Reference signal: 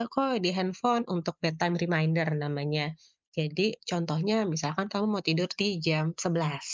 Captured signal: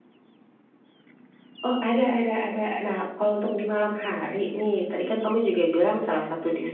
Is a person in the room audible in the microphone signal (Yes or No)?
Yes